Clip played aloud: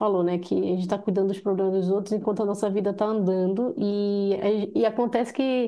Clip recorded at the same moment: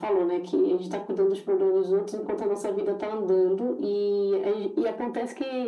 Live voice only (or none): none